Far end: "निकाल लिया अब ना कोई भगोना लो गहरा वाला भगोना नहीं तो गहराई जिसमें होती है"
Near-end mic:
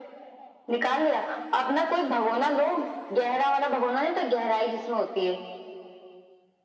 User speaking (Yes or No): No